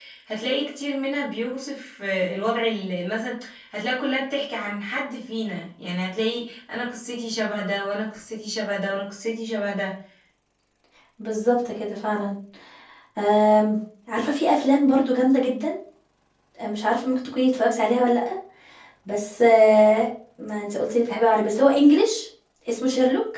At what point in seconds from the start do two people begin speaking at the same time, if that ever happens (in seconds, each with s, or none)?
none